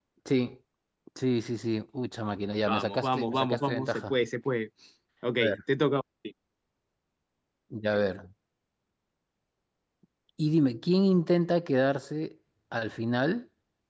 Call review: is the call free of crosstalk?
No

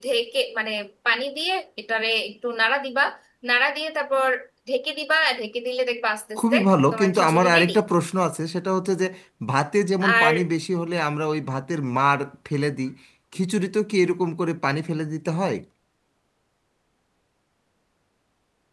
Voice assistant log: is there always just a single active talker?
No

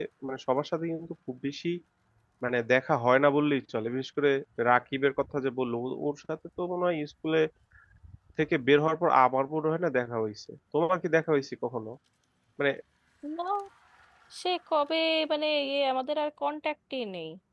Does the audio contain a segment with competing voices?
No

